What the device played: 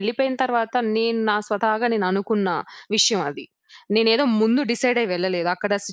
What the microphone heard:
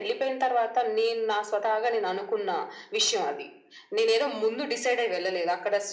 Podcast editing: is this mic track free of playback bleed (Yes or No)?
No